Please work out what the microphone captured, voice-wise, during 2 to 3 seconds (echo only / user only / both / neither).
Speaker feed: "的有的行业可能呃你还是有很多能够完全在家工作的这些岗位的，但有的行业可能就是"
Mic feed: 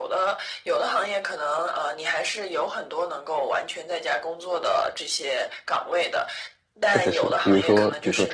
echo only